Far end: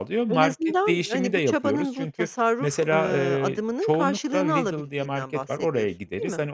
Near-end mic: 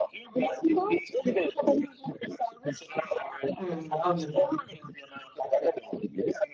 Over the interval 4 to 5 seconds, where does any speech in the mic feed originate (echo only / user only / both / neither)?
both